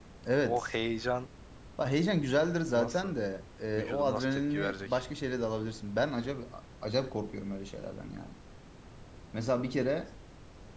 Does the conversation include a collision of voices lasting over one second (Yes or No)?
Yes